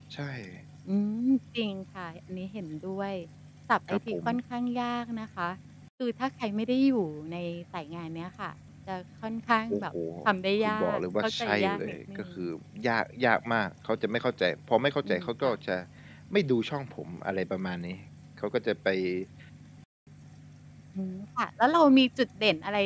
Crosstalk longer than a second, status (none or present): present